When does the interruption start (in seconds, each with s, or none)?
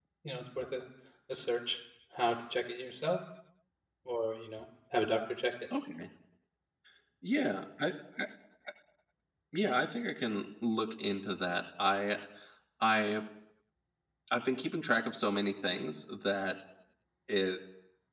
none